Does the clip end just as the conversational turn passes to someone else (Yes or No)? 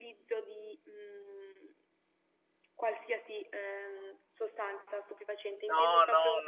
Yes